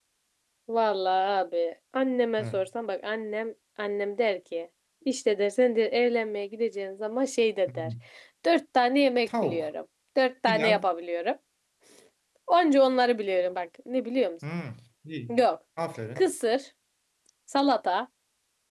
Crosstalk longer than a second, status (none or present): none